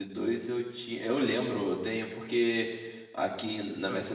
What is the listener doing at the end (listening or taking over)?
listening